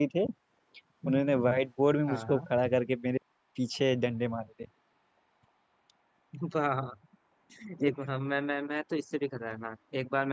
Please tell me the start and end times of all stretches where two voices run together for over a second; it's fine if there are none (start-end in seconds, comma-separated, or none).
none